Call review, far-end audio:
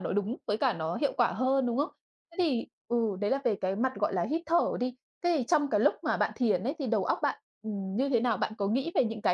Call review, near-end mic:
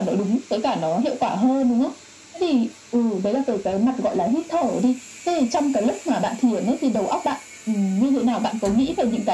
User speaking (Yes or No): No